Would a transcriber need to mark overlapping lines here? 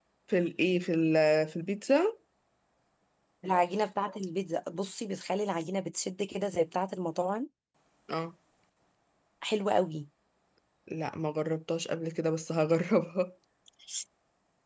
No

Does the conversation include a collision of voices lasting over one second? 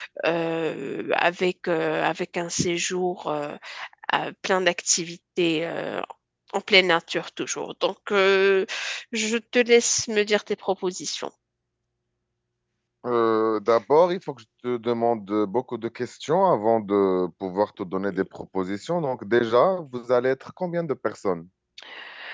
No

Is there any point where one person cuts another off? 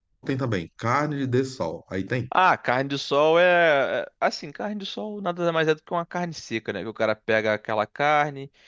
No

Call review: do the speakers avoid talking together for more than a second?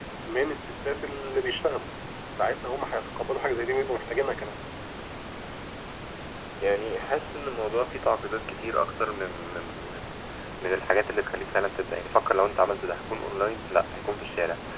Yes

